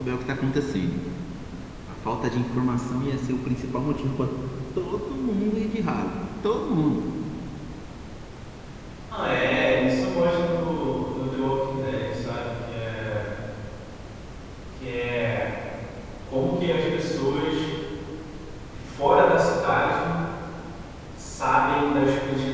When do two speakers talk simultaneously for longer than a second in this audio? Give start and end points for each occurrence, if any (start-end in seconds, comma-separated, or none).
none